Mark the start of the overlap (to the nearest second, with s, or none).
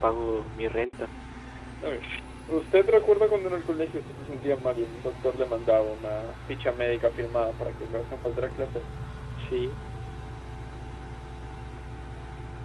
none